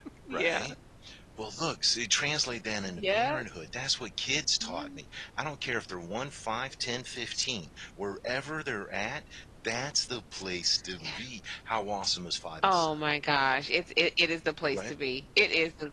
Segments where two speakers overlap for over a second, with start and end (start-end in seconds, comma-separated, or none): none